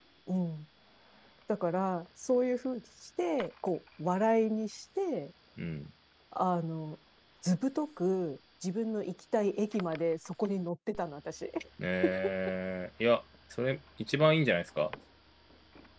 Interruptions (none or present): none